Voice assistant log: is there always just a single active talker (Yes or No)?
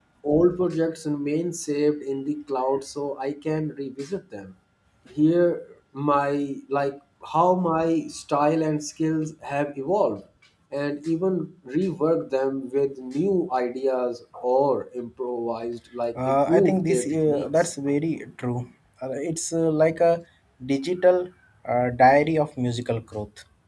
No